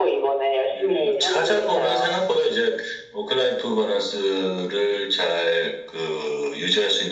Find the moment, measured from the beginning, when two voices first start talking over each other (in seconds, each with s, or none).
0.7 s